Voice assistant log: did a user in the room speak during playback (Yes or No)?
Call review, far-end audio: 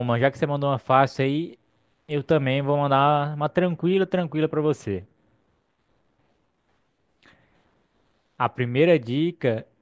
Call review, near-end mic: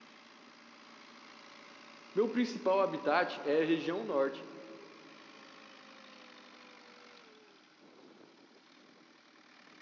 Yes